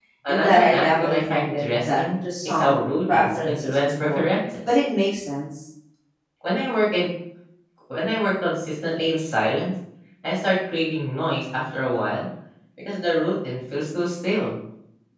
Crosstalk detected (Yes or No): Yes